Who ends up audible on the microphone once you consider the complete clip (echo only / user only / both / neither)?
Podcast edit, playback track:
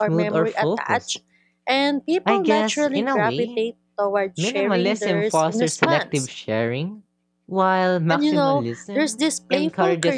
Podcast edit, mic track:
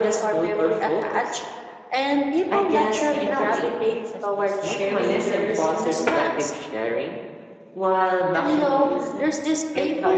both